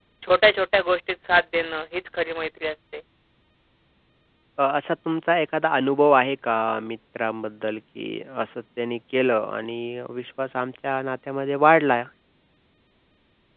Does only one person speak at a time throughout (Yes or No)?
Yes